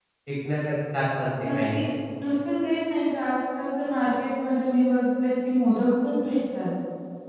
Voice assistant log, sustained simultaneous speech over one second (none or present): none